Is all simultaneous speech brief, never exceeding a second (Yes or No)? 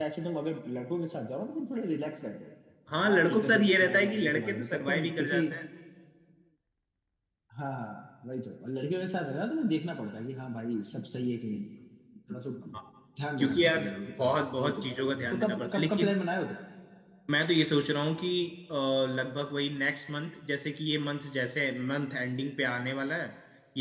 No